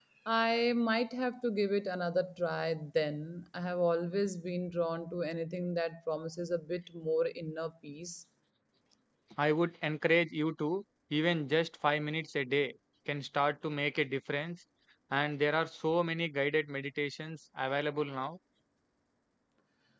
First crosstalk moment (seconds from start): none

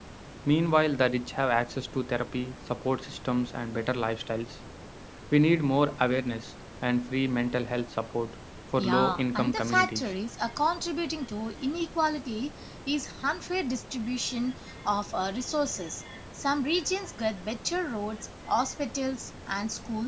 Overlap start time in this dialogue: 8.8 s

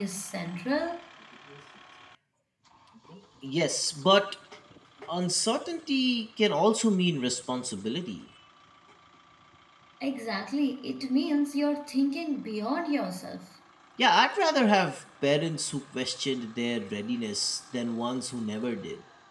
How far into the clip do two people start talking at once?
none

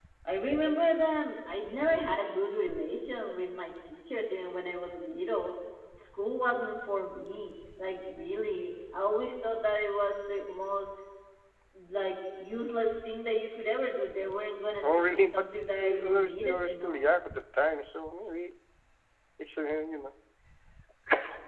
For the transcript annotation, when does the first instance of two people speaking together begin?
14.8 s

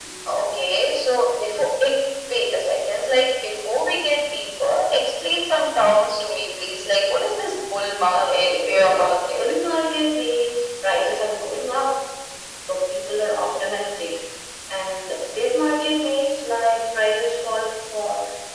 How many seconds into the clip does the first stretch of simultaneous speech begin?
8.1 s

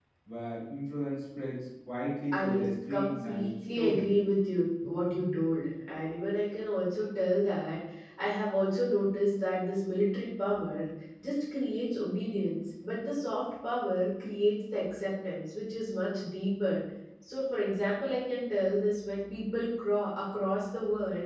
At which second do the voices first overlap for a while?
2.3 s

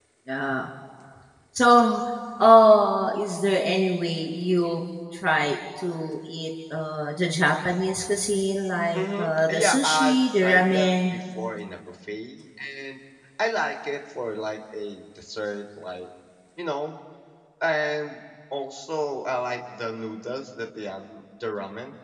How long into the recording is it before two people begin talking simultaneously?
8.9 s

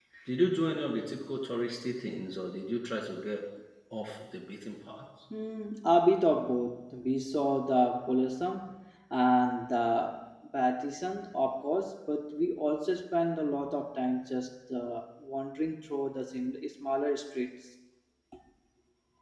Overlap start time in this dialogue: none

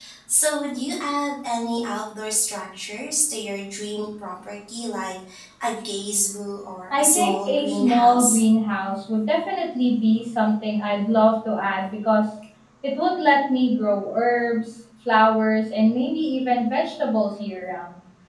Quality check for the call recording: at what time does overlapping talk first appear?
6.9 s

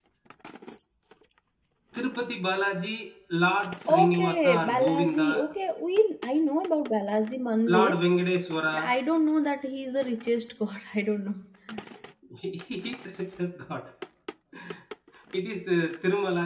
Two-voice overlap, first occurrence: 3.9 s

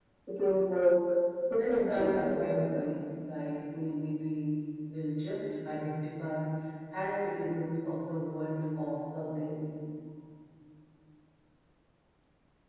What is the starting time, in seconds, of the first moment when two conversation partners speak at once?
1.5 s

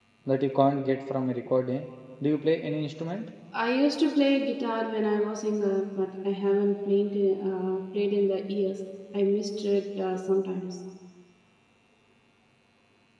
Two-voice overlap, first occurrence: none

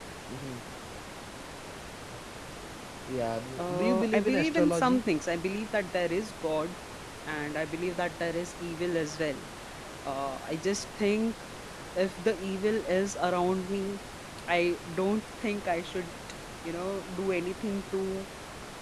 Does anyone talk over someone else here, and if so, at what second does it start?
3.6 s

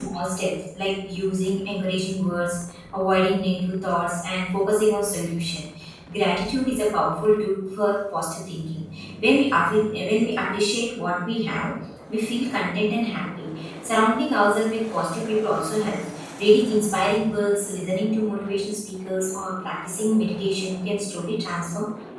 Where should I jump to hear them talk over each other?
none

